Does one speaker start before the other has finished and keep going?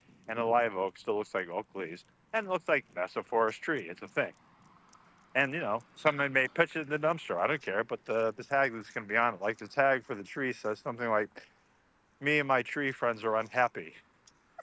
No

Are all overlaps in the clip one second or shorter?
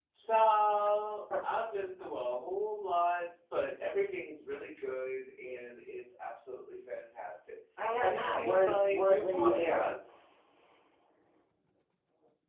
No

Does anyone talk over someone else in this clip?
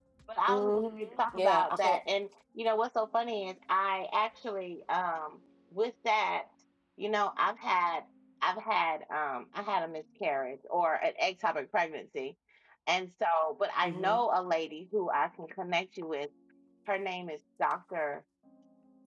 Yes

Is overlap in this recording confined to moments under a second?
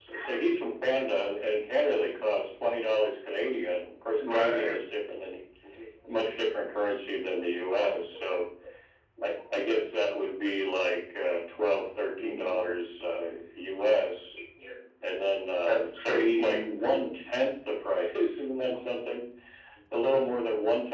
No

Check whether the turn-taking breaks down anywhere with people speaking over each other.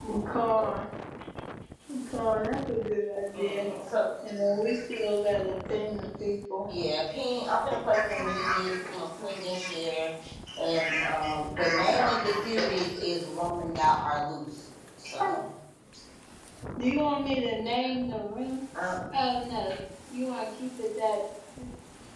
Yes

